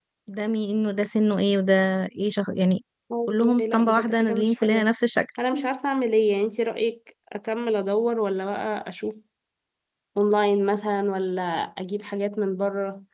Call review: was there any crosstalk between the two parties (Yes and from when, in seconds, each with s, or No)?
Yes, from 3.3 s